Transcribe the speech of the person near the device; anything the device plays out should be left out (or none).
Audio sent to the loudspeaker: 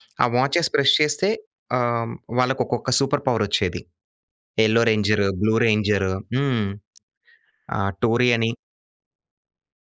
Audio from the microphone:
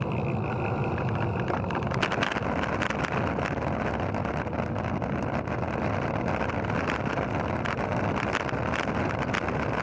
none